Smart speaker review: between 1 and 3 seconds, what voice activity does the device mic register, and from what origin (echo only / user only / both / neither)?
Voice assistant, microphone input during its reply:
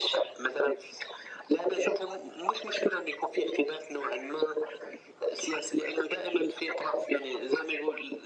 echo only